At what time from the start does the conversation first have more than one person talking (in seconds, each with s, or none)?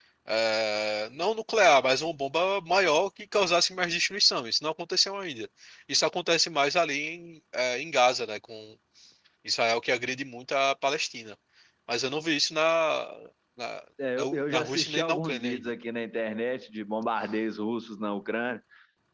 14.2 s